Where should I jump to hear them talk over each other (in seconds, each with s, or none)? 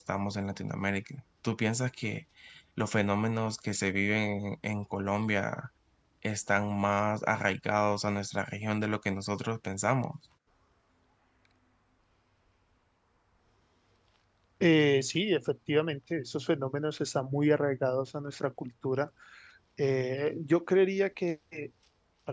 none